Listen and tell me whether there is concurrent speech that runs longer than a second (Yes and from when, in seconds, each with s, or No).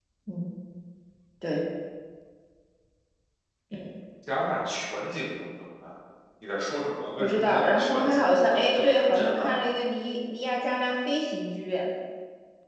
Yes, from 7.2 s